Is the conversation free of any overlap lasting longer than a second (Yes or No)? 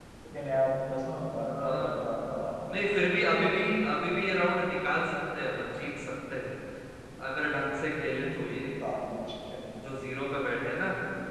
Yes